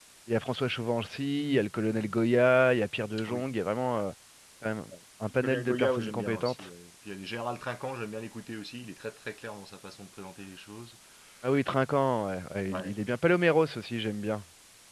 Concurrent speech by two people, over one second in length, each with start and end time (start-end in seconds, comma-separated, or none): 5.4-6.7